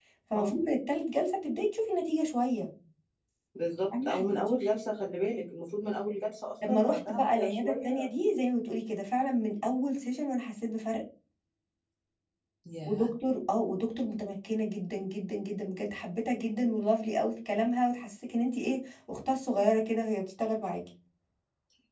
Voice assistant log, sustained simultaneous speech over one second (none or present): present